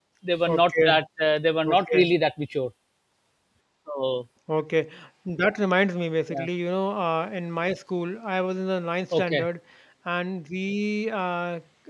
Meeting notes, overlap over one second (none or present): none